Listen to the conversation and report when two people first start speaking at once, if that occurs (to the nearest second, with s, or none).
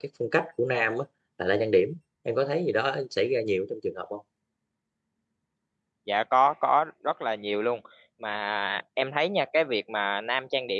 none